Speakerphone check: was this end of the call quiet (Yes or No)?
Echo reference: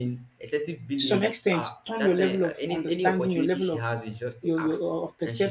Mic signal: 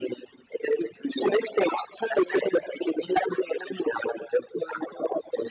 Yes